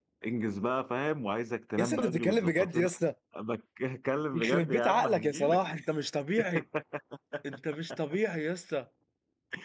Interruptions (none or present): present